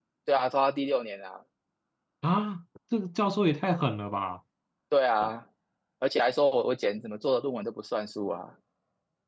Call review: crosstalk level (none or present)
none